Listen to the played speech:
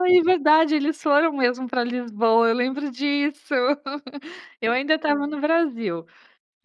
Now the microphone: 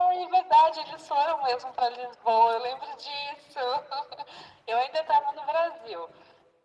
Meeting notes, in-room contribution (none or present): none